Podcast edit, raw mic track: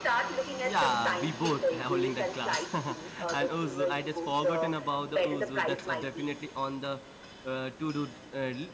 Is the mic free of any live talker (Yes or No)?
No